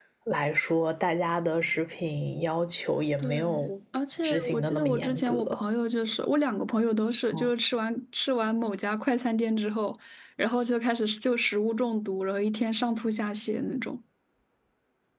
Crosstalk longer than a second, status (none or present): present